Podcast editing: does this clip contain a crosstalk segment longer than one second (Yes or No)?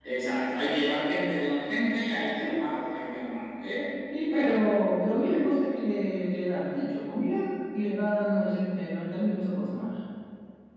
No